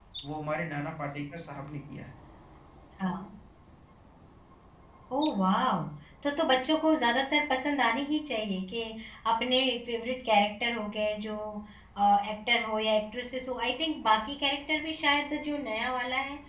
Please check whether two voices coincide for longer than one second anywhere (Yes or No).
No